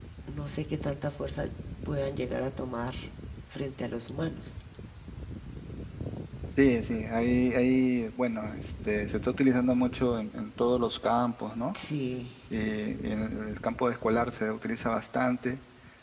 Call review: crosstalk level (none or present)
none